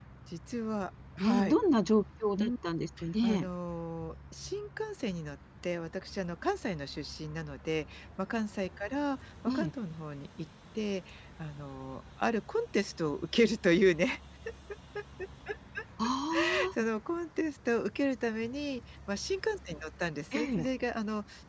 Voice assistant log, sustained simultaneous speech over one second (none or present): none